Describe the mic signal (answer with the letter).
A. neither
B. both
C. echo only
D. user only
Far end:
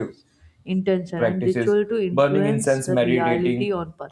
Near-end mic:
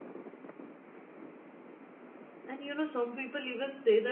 D